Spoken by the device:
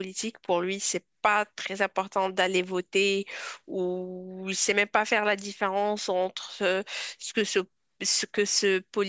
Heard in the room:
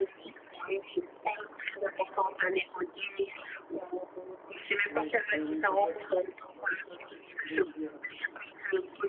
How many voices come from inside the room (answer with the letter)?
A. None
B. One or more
B